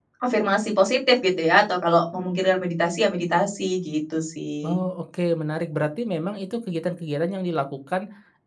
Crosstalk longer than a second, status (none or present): none